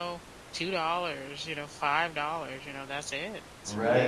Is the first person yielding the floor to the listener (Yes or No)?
Yes